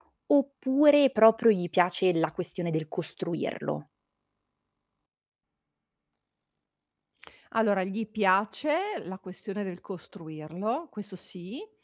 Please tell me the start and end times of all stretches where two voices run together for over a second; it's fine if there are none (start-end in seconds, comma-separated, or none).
none